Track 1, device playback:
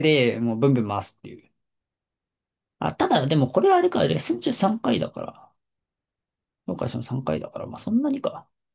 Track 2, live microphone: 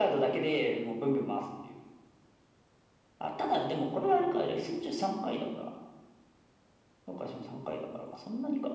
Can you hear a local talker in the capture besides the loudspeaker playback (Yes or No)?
No